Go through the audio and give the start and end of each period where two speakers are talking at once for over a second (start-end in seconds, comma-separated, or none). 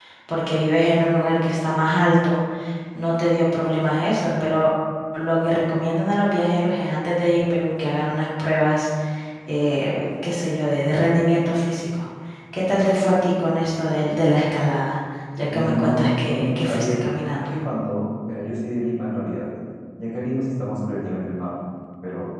15.5-17.6